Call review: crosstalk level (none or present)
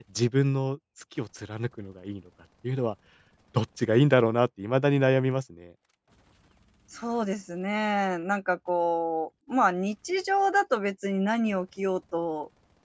none